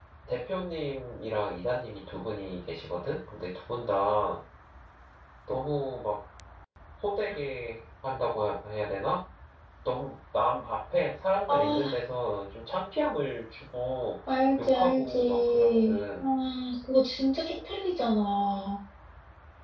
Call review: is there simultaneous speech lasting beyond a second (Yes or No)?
Yes